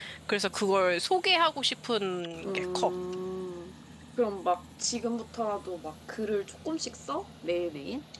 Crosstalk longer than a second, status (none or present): none